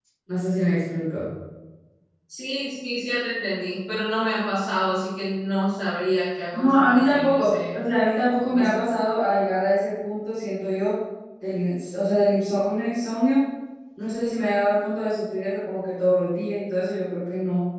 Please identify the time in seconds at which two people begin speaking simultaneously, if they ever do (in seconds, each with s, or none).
6.5 s